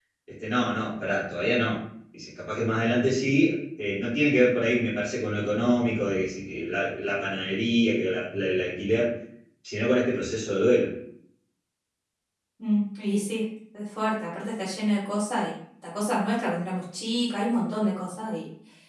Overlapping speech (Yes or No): No